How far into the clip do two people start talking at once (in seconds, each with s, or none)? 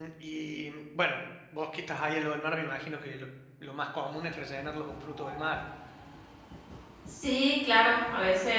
none